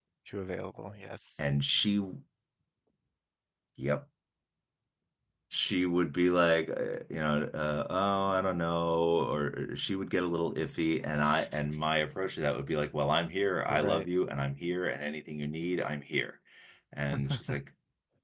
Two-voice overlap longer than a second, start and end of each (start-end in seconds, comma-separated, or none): none